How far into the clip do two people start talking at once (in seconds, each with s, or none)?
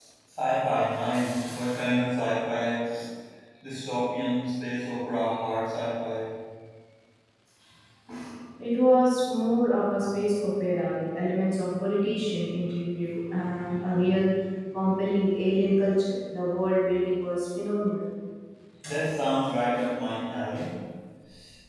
none